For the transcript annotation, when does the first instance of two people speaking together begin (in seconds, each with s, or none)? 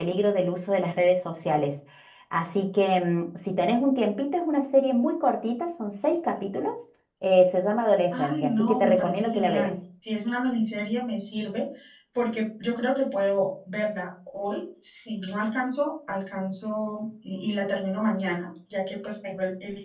8.1 s